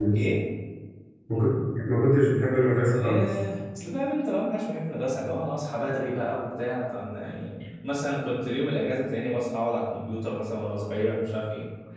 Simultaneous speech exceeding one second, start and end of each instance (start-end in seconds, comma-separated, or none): none